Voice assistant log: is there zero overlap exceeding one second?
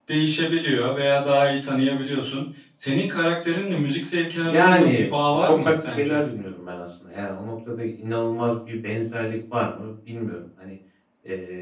No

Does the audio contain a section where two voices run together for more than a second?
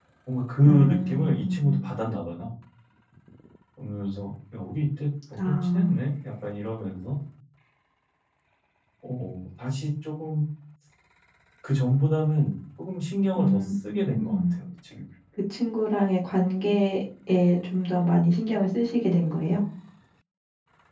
Yes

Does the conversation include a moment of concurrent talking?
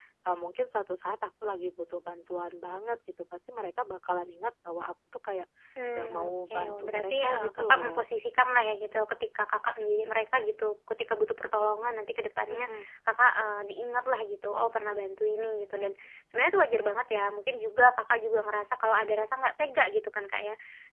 Yes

